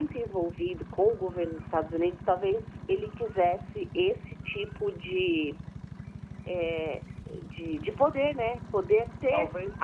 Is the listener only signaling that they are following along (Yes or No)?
Yes